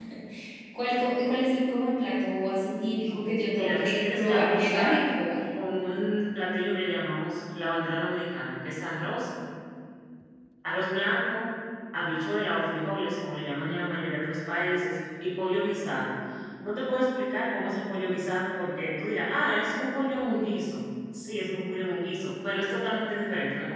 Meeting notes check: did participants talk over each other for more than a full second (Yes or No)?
Yes